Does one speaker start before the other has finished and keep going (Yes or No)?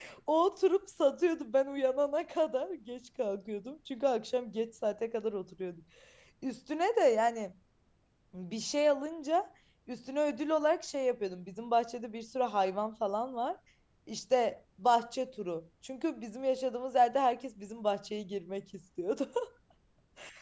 No